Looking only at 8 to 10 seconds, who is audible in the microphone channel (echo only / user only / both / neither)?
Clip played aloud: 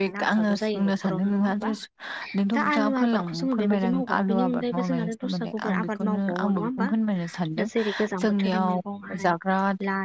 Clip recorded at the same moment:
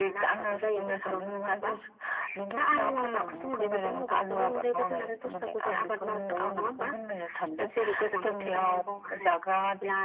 echo only